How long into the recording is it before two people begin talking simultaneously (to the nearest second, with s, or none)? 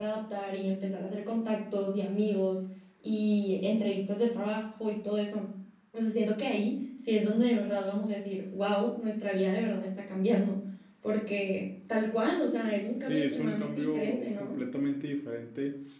13 s